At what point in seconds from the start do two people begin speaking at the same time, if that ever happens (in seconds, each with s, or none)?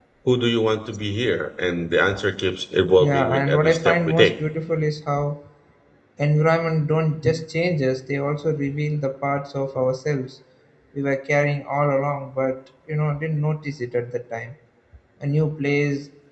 3.0 s